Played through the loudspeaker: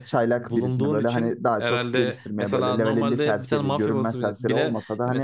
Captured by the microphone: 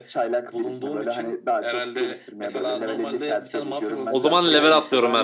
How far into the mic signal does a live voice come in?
4.1 s

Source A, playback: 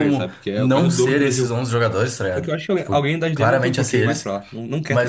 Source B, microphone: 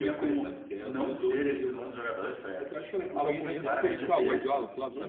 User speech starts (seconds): 3.1 s

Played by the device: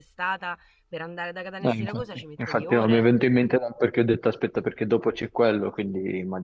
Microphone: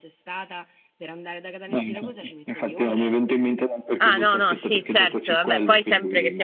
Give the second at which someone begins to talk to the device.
4.0 s

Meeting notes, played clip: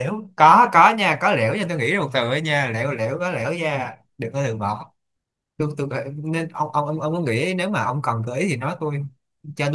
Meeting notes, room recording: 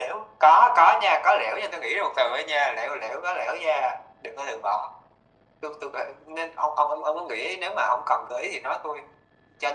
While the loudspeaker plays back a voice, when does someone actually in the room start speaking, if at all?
none

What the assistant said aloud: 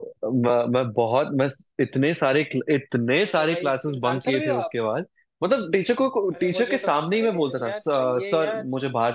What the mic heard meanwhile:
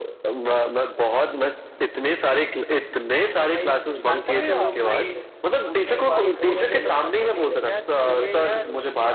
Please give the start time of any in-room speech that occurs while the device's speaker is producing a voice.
3.8 s

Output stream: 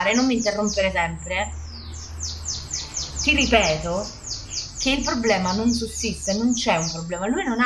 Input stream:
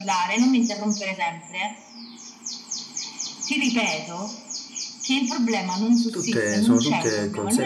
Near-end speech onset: 6.1 s

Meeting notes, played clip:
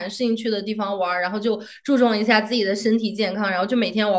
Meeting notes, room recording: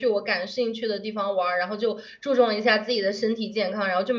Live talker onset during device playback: none

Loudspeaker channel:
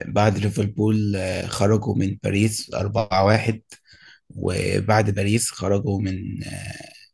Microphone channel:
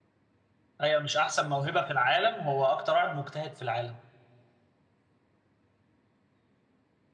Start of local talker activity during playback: 0.8 s

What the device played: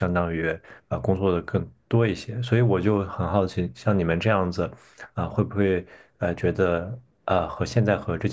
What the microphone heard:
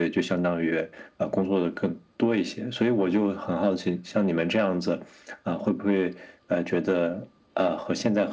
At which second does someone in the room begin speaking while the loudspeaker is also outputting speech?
none

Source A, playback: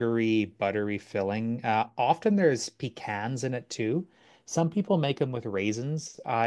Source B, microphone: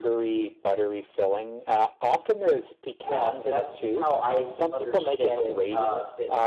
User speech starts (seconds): 3.0 s

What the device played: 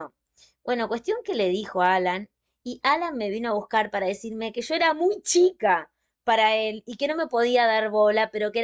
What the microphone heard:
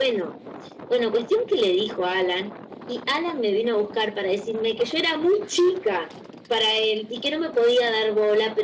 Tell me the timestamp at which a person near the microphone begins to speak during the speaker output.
none

